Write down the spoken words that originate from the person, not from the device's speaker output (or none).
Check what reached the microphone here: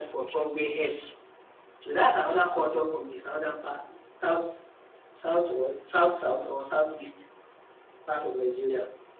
none